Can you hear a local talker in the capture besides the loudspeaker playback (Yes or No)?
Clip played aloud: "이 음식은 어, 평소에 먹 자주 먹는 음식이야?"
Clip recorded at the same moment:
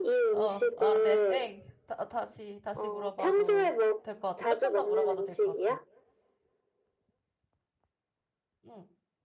Yes